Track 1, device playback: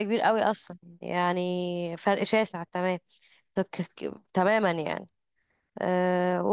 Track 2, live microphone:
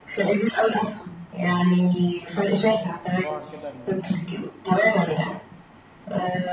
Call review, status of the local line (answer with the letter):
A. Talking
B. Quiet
A